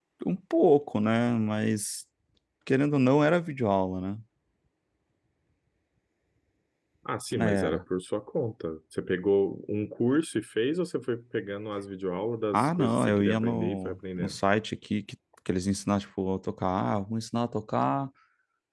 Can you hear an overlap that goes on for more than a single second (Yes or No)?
Yes